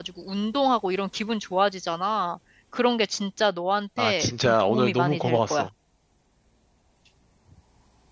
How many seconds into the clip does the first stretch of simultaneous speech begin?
4.0 s

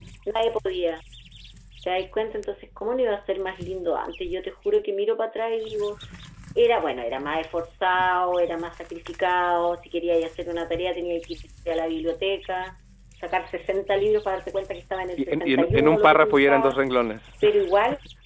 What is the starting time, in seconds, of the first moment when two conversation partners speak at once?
15.2 s

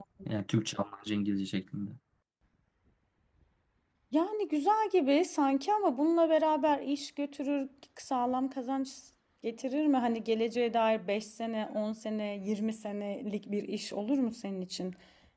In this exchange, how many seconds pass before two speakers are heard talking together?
none

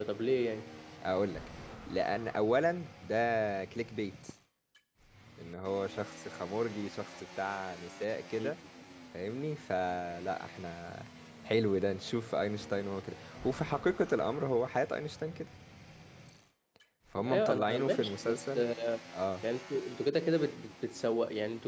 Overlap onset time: 17.3 s

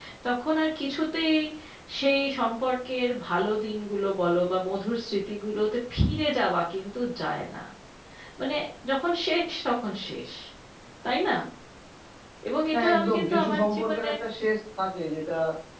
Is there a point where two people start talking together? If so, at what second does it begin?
12.7 s

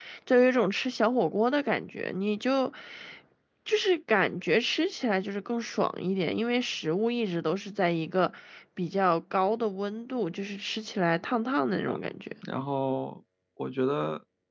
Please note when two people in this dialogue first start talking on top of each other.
none

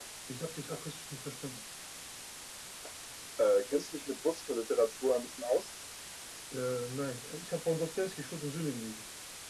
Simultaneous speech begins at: none

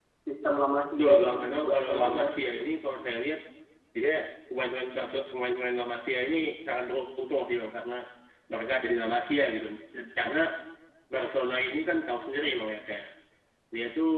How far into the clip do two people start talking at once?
1.0 s

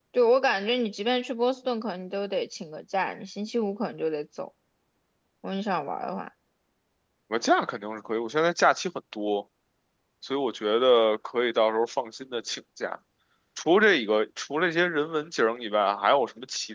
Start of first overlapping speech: none

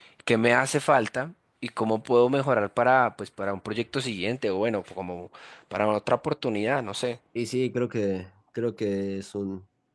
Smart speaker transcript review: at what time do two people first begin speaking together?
none

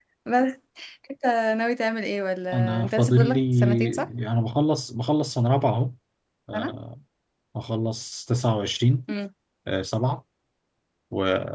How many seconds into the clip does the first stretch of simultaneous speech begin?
2.5 s

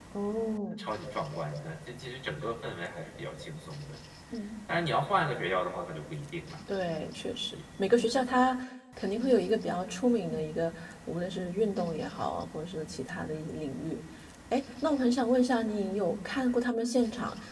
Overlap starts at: none

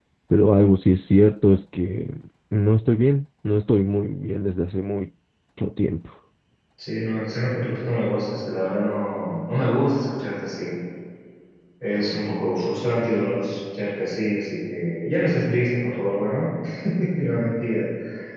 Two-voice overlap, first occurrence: none

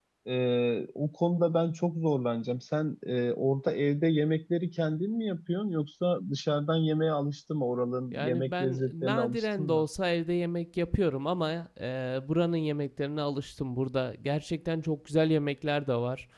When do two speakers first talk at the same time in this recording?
8.1 s

